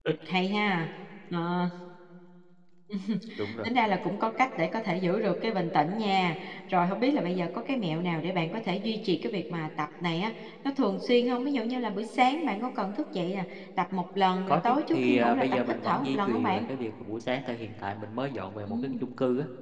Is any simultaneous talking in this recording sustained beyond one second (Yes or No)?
Yes